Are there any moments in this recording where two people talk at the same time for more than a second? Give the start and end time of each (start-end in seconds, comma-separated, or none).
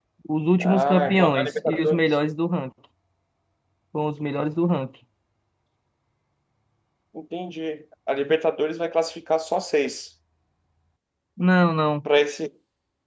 0.6-2.0